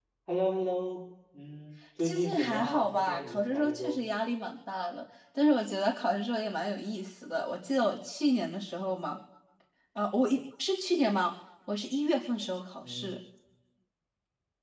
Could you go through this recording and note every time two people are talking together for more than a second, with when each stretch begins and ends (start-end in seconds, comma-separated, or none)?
2.0-4.0